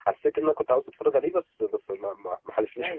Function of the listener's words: taking over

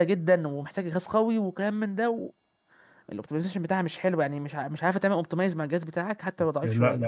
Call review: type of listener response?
taking over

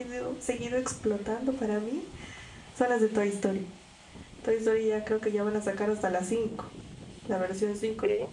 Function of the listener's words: listening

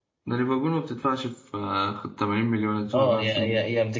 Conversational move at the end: taking over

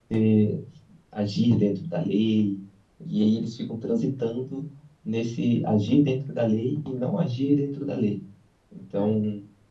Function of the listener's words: listening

